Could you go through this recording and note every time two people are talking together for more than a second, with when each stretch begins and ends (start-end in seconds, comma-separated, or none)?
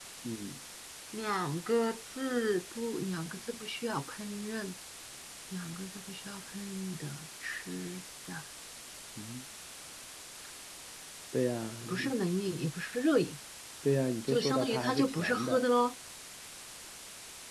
14.3-15.6